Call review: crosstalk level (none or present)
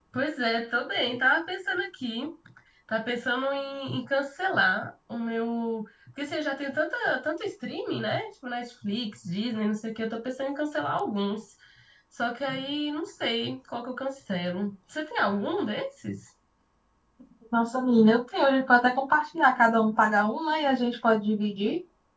none